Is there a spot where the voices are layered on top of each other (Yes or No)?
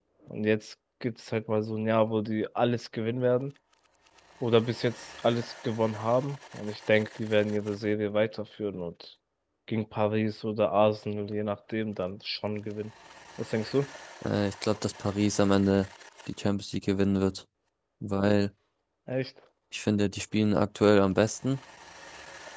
No